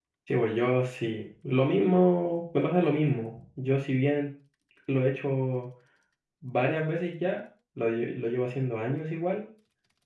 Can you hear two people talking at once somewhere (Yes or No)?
No